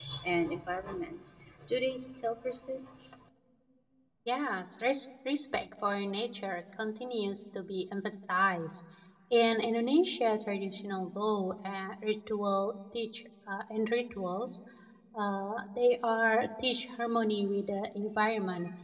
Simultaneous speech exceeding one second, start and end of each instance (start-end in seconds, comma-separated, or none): none